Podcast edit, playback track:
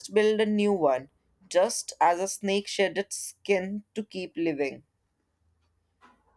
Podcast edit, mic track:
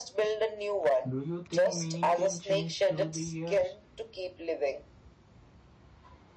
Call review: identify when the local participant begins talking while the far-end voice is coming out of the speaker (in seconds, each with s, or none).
1.0 s